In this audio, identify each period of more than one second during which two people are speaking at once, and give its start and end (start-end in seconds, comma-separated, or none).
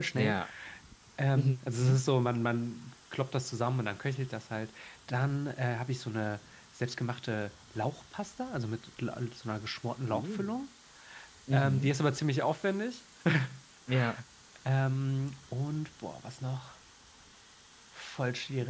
none